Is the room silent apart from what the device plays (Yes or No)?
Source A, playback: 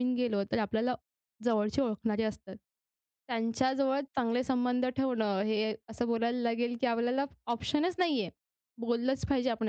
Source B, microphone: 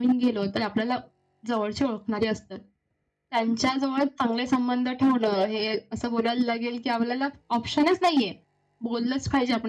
Yes